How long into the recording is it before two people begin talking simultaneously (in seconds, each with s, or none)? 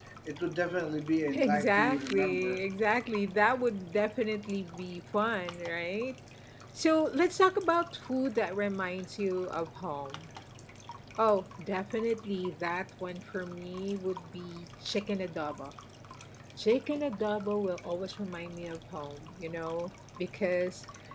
1.3 s